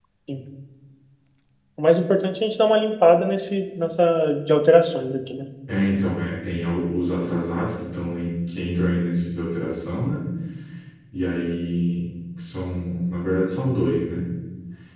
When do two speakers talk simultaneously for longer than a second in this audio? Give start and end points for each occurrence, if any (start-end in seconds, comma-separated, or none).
none